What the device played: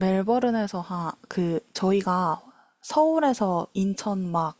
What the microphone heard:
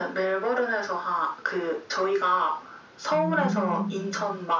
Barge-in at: 3.1 s

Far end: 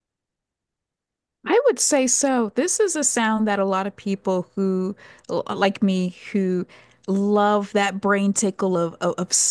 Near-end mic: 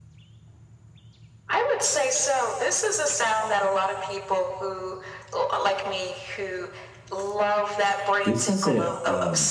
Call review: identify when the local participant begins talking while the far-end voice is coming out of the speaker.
8.2 s

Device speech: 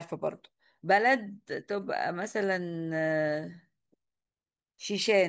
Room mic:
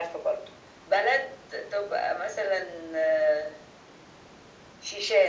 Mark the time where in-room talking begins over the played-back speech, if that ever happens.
none

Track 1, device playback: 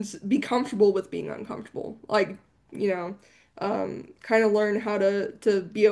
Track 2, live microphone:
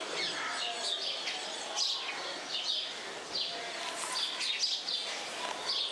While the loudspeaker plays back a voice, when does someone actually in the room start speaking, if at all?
none

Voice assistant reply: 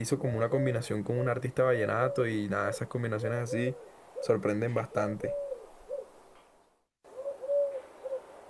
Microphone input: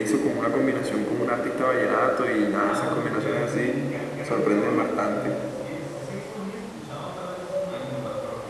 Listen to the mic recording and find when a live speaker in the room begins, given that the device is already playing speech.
2.6 s

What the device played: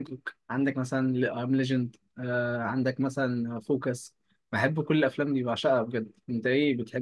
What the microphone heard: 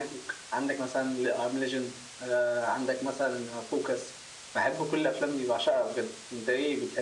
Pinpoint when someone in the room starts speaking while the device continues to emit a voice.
none

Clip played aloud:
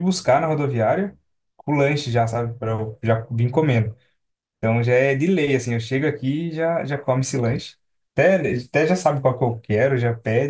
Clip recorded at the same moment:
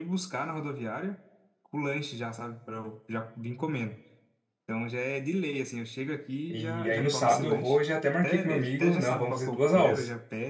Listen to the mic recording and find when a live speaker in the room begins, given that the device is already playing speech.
6.5 s

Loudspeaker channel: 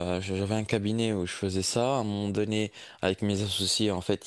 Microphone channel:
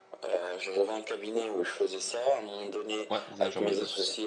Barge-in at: 3.1 s

